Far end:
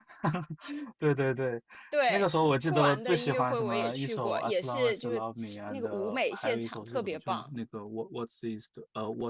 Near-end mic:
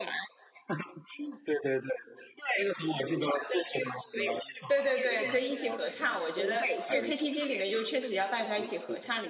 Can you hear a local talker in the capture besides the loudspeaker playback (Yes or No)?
Yes